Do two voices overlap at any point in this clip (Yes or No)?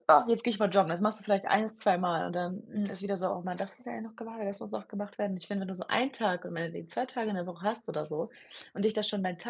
No